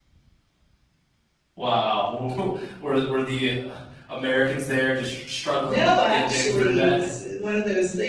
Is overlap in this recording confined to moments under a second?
No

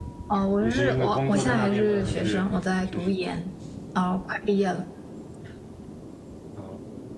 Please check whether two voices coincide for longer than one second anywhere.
Yes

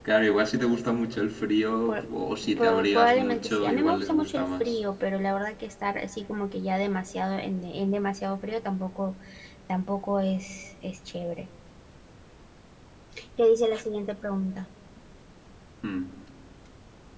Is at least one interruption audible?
Yes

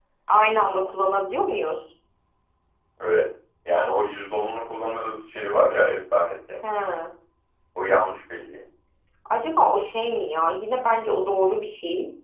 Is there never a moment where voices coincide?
Yes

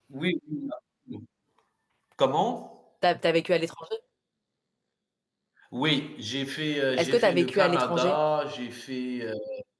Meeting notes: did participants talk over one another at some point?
Yes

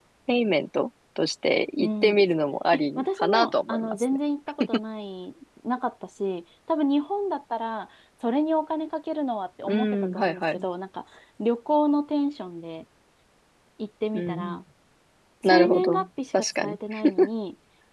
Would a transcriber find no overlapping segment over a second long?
No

